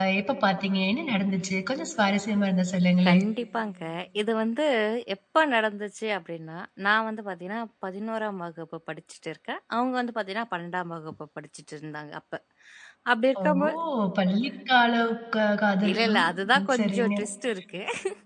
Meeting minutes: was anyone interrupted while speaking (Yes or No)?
Yes